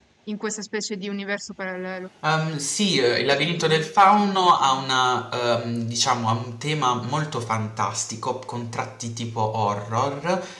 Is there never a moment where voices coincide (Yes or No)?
Yes